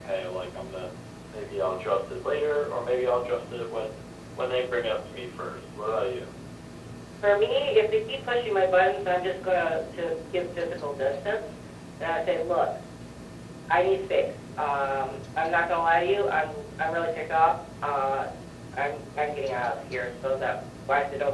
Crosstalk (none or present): none